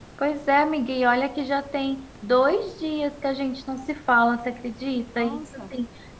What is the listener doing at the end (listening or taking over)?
listening